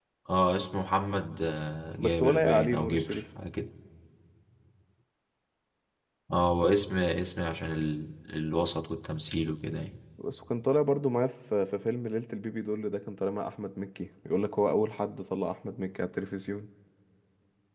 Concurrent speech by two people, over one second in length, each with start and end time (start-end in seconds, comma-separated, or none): 2.0-3.2